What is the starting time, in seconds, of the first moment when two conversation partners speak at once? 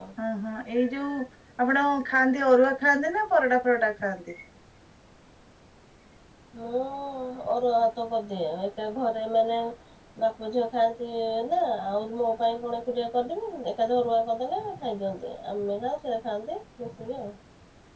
none

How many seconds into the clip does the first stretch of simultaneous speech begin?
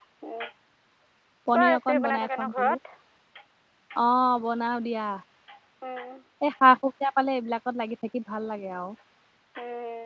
1.5 s

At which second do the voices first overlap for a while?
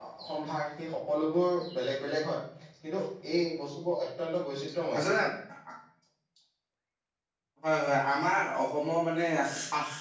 none

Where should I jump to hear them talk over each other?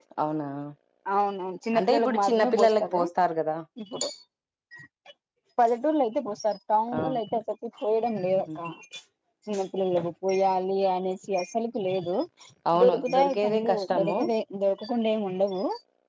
1.8 s

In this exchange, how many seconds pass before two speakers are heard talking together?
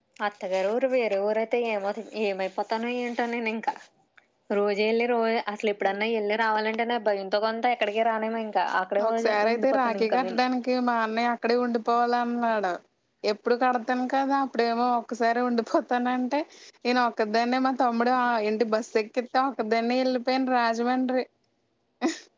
9.0 s

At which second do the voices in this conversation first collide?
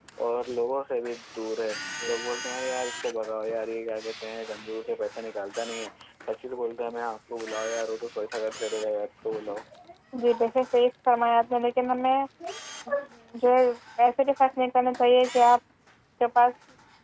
none

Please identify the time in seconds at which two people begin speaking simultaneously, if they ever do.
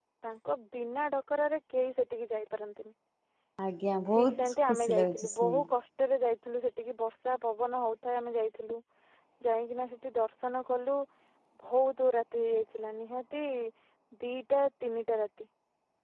4.1 s

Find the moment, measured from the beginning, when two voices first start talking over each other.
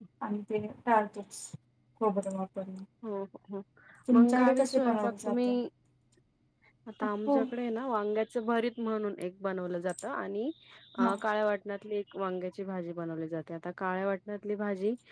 4.2 s

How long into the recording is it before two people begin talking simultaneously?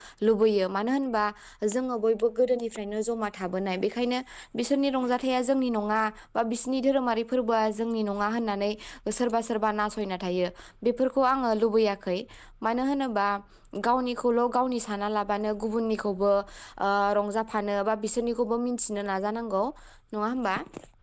none

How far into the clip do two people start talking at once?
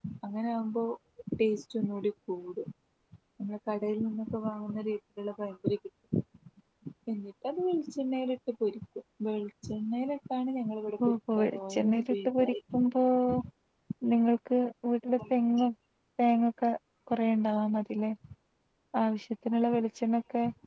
11.0 s

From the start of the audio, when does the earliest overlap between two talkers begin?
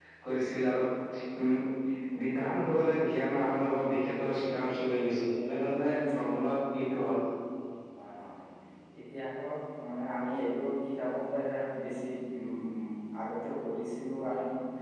none

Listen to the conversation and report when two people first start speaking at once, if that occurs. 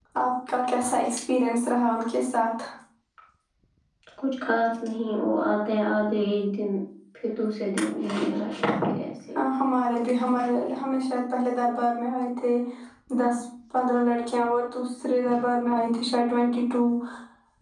none

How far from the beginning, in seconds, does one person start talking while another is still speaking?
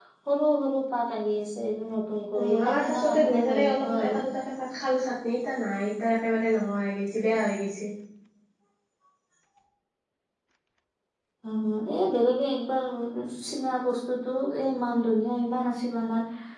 2.3 s

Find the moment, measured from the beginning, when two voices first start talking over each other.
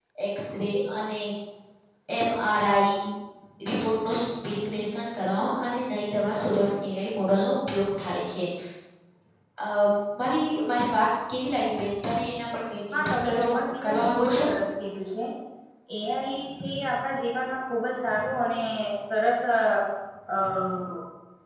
12.9 s

